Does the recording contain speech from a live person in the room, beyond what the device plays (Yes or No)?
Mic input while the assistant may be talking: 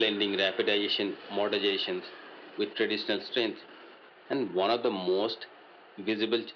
No